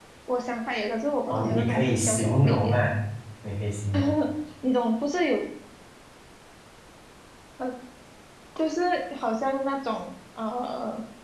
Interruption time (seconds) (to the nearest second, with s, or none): 1 s